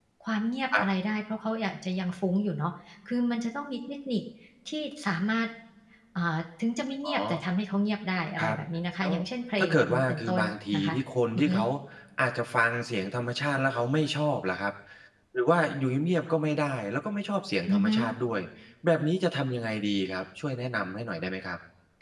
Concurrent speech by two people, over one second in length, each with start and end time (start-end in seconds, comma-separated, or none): 9.6-10.9